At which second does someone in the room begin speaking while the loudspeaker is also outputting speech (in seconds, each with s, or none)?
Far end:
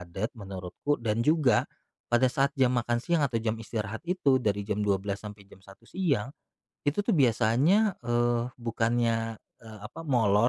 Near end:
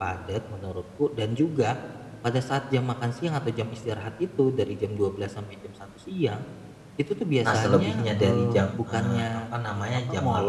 7.5 s